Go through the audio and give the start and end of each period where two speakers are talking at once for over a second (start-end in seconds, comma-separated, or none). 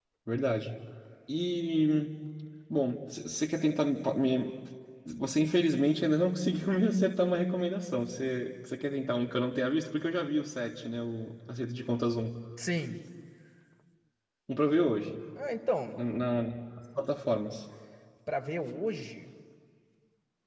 none